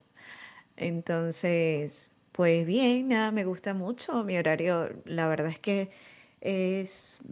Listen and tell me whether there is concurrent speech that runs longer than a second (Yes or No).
No